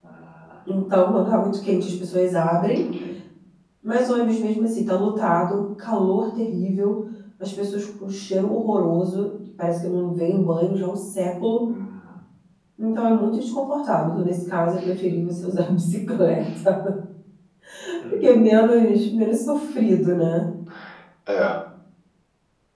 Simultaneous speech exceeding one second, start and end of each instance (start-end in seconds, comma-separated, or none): none